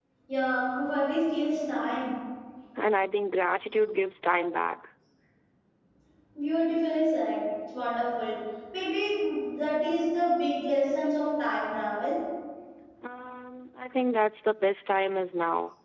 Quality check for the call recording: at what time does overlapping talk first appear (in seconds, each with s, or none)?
none